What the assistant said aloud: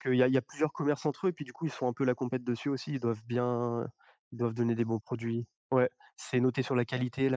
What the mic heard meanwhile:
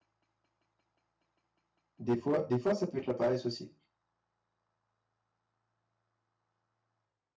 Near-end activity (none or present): present